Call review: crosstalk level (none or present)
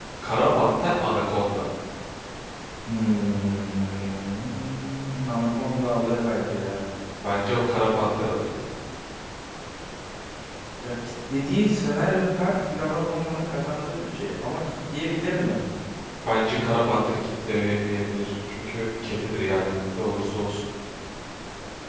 none